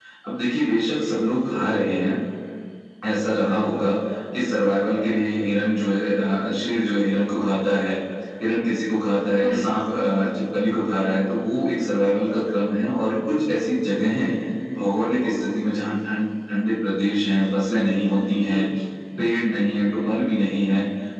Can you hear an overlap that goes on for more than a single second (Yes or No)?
No